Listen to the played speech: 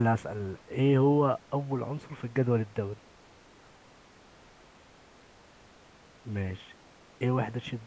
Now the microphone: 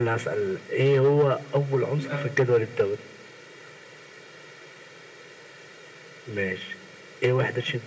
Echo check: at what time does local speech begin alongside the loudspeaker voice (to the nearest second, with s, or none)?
2 s